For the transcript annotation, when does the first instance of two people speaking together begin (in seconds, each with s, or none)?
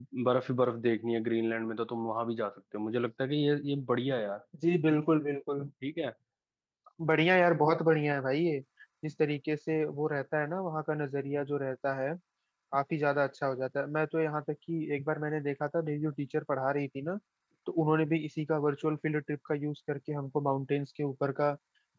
none